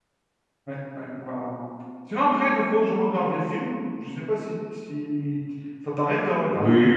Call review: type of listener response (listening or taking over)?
taking over